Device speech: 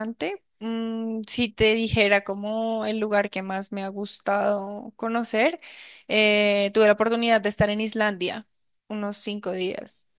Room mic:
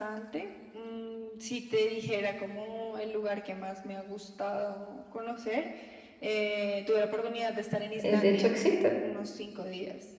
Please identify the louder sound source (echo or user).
user